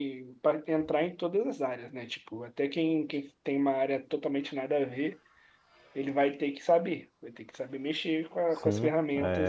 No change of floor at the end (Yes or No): No